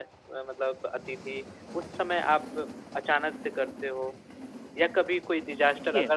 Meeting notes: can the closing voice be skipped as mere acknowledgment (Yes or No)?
Yes